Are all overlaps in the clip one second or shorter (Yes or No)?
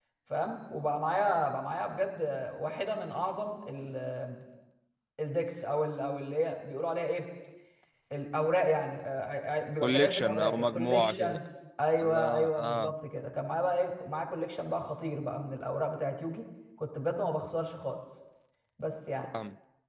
No